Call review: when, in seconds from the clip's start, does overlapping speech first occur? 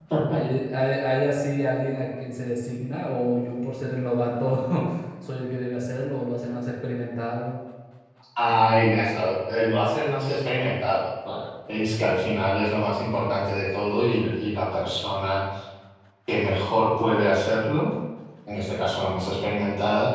none

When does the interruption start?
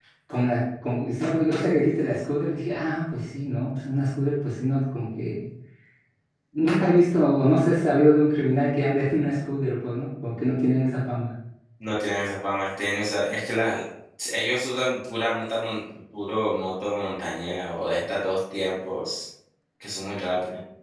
none

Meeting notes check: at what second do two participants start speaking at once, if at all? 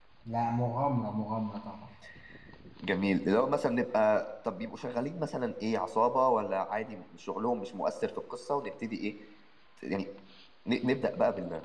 none

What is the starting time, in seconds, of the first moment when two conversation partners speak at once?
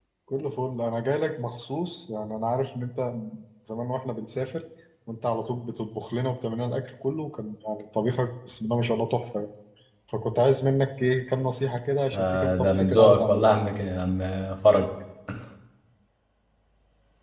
12.1 s

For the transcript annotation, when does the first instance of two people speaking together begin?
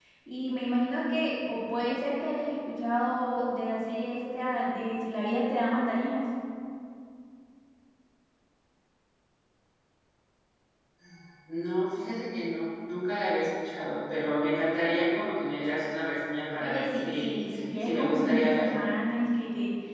16.6 s

